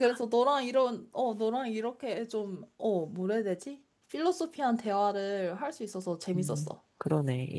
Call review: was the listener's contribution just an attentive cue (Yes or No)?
No